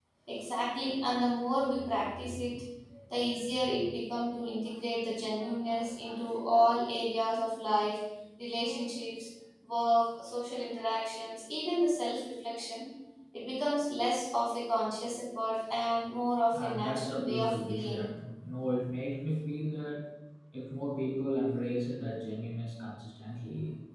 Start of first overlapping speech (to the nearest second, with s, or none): 17 s